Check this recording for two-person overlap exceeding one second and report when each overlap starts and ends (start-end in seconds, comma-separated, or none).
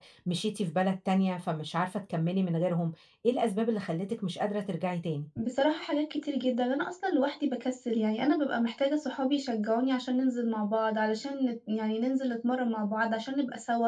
none